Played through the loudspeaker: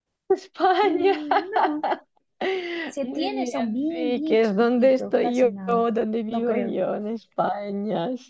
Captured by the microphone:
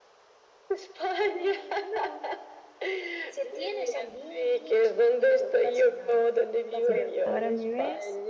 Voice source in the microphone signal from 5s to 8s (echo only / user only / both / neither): both